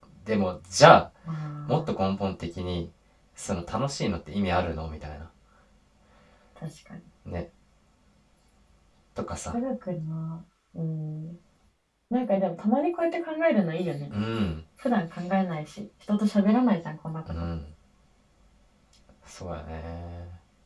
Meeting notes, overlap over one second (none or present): none